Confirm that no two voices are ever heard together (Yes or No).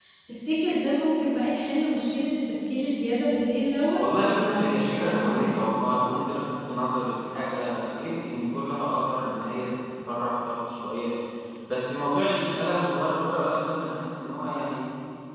No